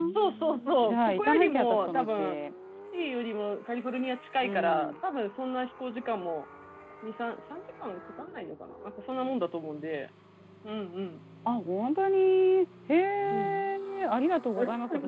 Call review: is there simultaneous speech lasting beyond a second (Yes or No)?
Yes